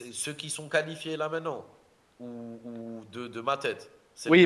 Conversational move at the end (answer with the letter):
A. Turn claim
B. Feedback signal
A